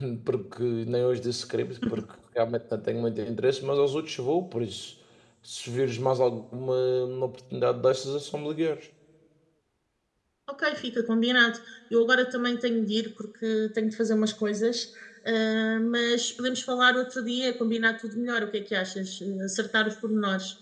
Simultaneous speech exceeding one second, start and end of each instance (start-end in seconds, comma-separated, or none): none